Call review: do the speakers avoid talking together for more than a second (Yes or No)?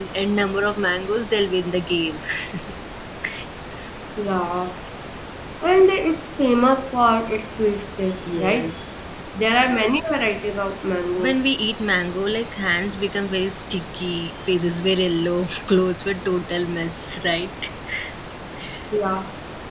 Yes